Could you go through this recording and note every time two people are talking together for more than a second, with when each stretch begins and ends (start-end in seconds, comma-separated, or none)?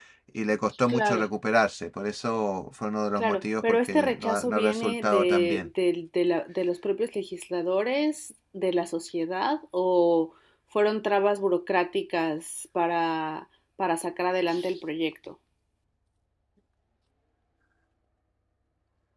3.2-5.7